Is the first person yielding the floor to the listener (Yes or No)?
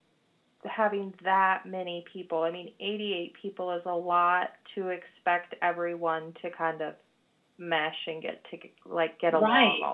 Yes